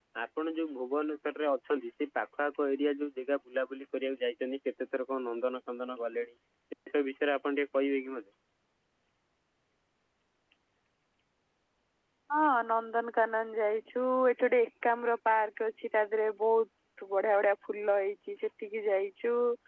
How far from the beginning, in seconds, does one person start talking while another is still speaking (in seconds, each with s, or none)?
none